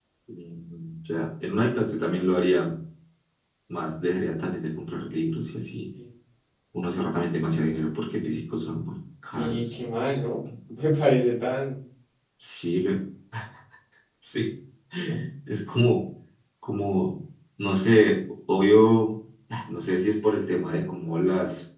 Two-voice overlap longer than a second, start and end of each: none

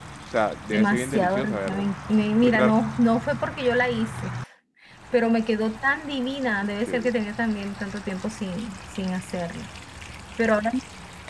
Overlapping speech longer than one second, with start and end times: 0.7-1.9

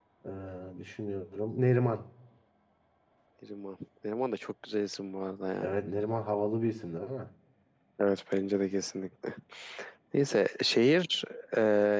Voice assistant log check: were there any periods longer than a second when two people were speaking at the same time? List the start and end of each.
none

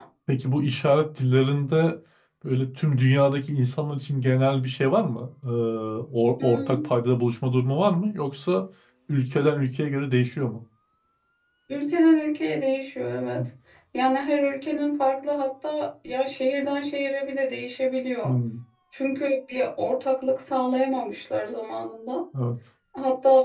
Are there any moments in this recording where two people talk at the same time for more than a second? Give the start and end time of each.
none

